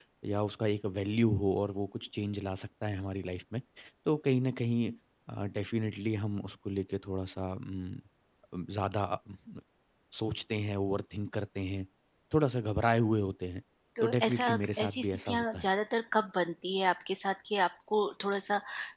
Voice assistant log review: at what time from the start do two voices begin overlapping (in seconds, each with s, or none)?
14.0 s